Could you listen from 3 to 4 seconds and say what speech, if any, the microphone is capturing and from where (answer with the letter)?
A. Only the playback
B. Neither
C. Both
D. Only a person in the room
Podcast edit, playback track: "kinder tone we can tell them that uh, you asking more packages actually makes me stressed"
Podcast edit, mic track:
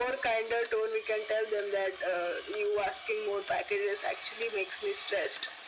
A